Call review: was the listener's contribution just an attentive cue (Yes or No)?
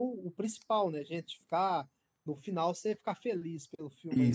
No